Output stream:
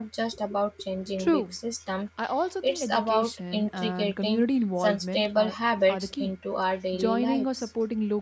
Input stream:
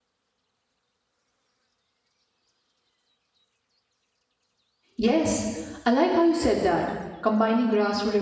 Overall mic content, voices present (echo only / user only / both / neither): user only